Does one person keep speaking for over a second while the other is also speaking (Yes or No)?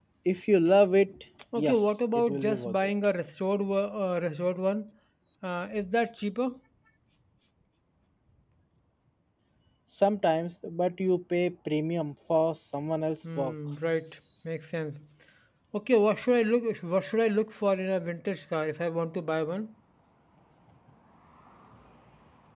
Yes